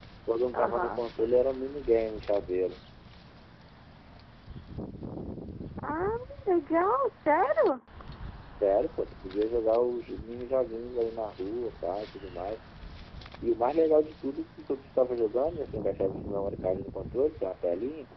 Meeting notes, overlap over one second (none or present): none